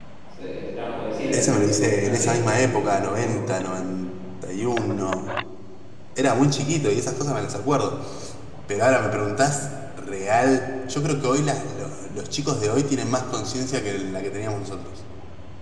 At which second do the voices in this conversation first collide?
1.3 s

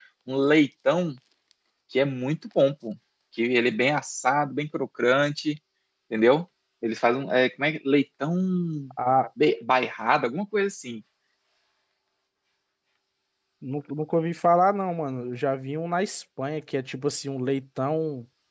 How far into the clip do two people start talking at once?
none

